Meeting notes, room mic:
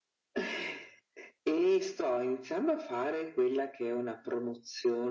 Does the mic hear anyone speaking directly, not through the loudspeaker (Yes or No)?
No